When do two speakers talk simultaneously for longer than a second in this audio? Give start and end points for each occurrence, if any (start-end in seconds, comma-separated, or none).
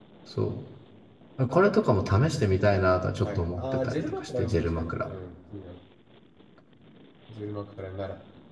3.2-5.1